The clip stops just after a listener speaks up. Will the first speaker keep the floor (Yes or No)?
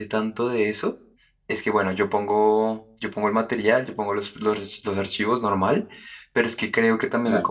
Yes